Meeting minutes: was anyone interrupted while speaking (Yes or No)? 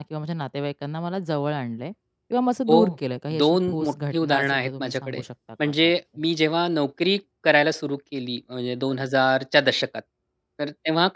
Yes